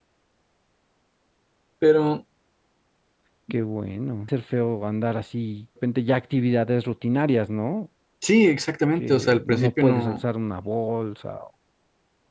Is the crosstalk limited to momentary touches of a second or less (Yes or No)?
No